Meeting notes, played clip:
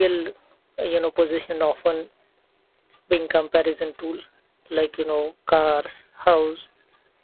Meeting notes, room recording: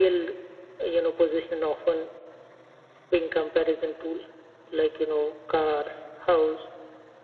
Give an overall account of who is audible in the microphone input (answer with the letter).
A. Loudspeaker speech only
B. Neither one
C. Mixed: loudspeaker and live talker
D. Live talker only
A